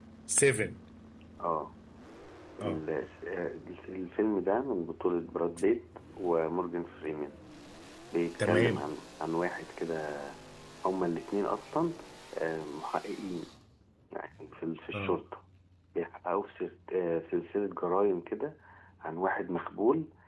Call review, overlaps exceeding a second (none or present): none